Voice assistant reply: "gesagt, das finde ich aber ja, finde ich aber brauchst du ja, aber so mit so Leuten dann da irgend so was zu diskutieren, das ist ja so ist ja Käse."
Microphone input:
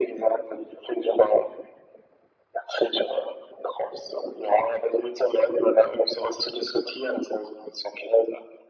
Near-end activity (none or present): none